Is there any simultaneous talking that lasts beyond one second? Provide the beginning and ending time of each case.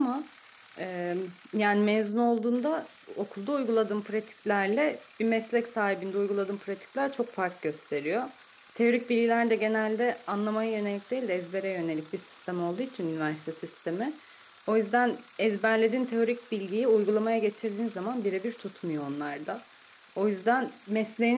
none

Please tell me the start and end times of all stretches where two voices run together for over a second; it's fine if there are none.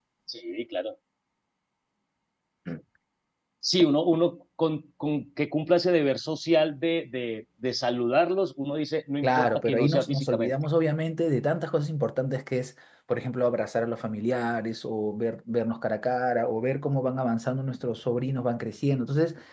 9.2-10.5

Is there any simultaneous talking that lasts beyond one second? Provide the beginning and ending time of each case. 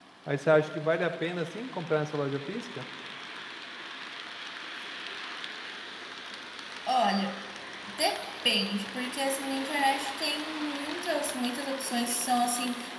none

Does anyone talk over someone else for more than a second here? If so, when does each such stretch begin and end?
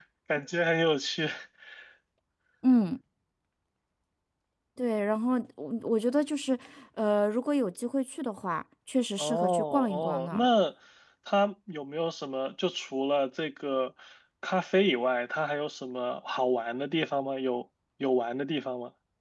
9.2-10.5

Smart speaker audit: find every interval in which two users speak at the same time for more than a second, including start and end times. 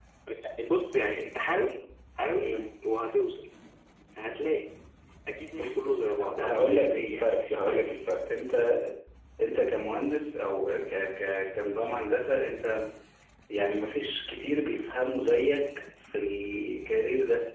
6.4-7.9

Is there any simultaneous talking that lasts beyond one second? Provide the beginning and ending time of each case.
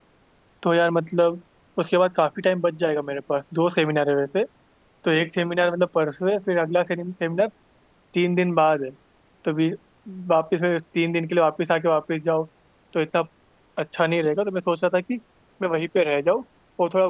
none

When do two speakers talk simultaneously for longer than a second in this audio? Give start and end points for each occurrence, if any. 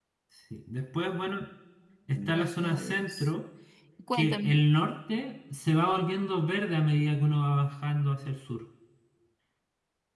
2.1-3.3

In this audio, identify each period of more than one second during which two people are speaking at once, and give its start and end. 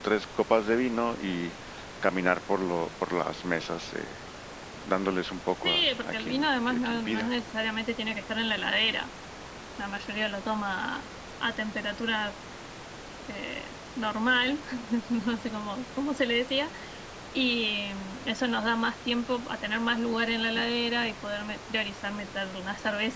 5.6-7.3

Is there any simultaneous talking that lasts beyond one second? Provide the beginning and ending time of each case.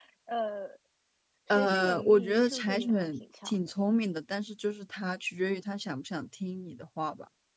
1.5-3.7

